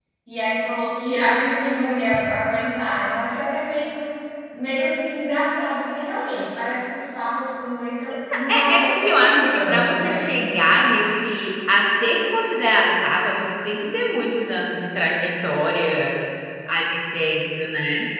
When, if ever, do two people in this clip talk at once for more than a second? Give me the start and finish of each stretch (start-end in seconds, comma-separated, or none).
8.7-10.2